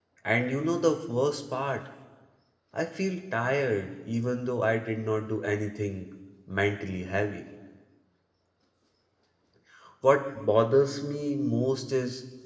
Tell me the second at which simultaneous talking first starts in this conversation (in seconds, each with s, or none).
none